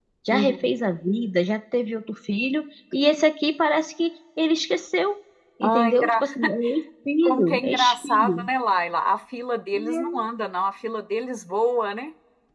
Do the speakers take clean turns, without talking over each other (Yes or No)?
No